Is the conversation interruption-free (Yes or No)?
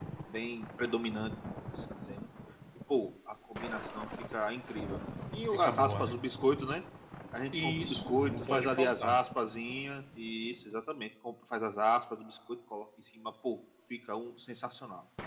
No